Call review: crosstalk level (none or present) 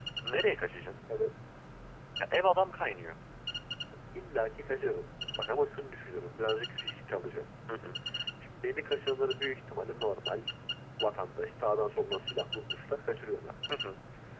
none